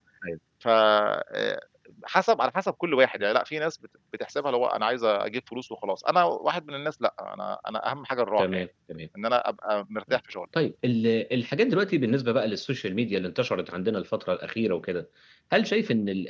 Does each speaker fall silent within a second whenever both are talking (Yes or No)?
Yes